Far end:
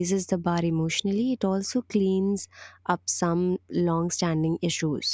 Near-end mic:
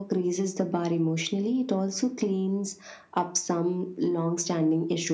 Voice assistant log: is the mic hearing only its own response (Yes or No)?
Yes